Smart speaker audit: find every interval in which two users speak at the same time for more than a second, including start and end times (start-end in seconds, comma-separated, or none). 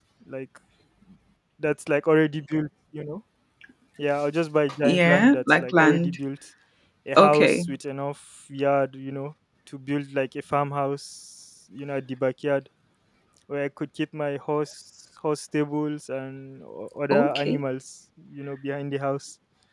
4.8-6.2